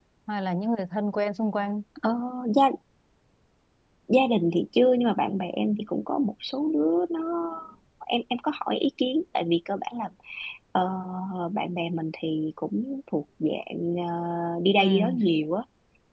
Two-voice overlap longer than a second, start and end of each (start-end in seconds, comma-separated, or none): none